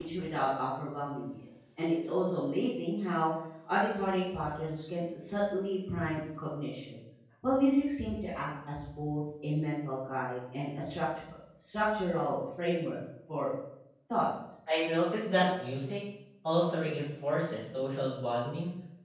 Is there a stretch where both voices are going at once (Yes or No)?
No